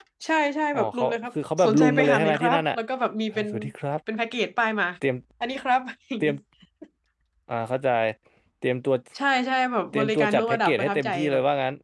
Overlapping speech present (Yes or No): Yes